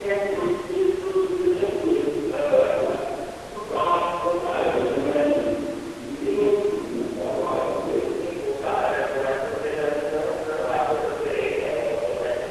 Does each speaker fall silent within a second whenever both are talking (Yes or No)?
Yes